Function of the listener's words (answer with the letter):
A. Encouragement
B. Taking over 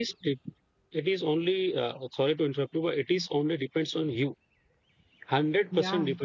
A